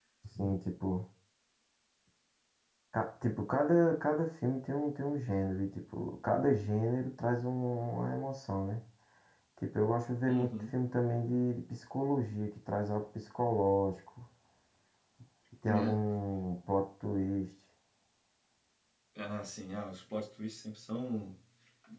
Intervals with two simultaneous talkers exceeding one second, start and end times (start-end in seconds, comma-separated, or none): none